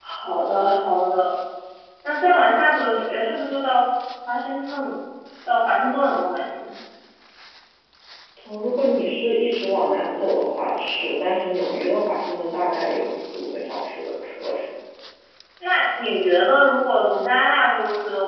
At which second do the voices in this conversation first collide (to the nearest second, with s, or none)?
none